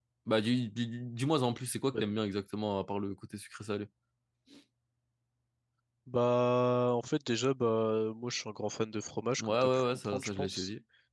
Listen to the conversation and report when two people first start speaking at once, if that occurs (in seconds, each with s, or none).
9.4 s